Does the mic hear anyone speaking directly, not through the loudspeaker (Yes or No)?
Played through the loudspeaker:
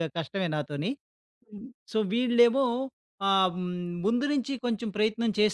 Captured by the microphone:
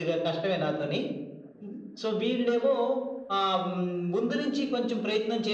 No